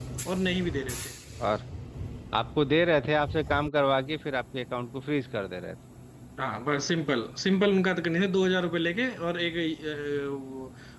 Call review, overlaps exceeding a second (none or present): none